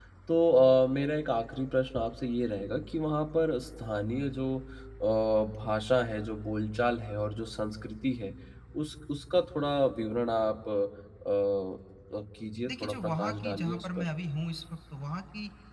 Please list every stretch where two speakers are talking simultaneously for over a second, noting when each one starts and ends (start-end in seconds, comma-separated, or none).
12.7-14.1